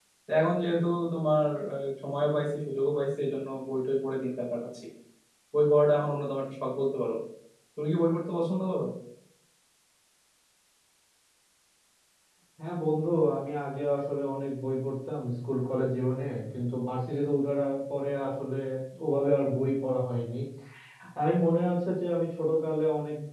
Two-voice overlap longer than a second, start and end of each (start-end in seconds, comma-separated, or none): none